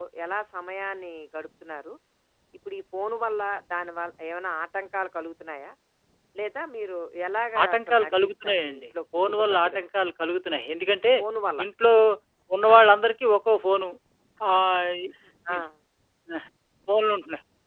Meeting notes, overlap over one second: present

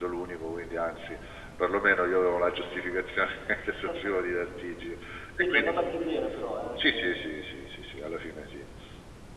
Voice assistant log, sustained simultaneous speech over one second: none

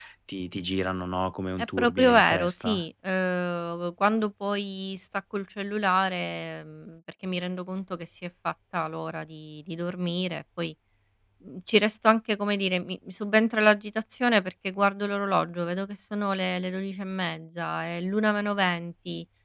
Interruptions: present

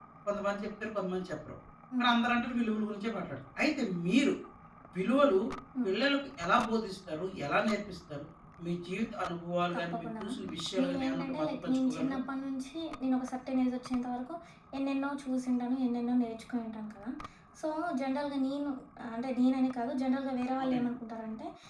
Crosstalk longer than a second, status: present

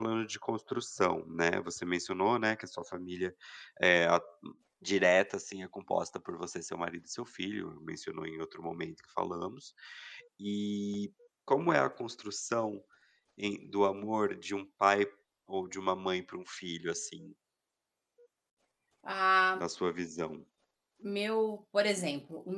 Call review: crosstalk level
none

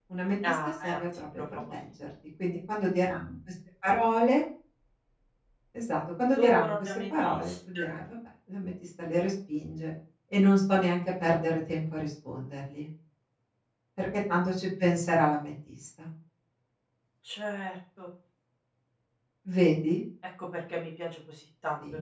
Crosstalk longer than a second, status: present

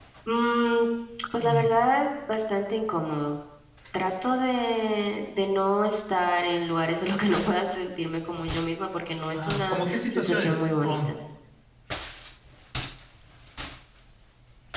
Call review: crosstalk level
present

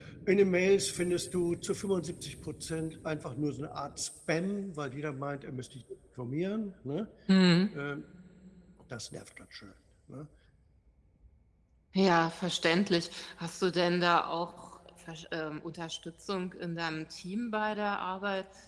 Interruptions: none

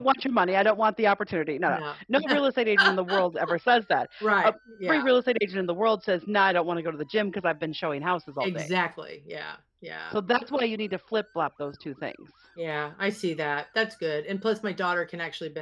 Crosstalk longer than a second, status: none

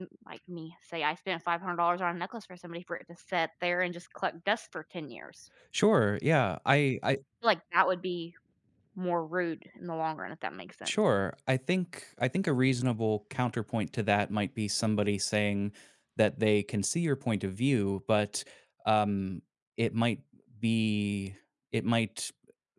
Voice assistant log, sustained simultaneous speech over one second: none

